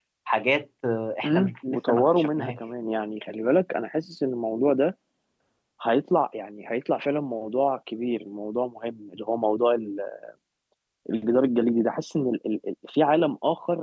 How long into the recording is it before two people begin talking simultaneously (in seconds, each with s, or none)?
1.2 s